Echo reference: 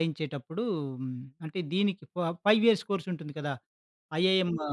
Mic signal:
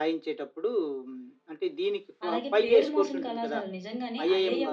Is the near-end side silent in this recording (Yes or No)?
No